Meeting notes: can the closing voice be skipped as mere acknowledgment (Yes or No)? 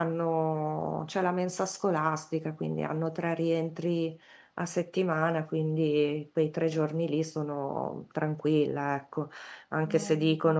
Yes